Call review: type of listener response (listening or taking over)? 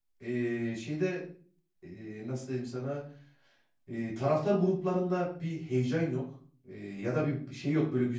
listening